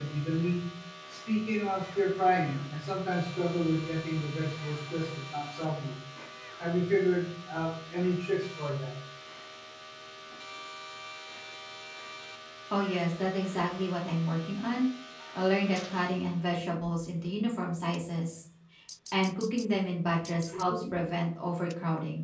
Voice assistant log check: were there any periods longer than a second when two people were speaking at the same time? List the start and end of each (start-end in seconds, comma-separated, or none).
none